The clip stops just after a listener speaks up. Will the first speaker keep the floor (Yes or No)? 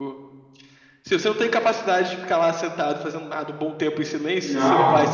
No